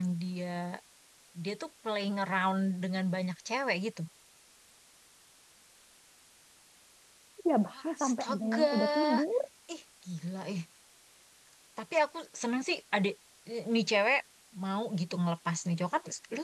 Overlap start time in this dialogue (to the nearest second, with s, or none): 8 s